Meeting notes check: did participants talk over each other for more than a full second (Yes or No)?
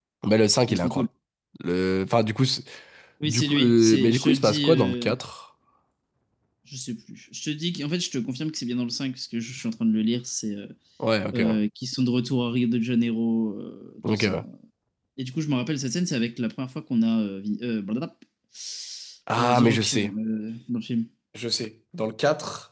Yes